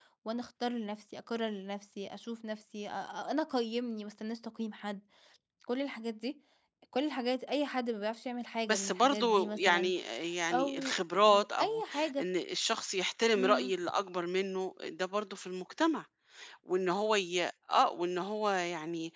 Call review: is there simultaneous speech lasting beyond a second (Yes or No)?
Yes